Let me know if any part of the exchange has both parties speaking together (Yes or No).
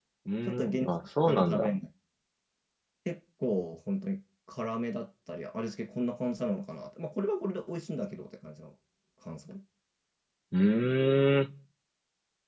Yes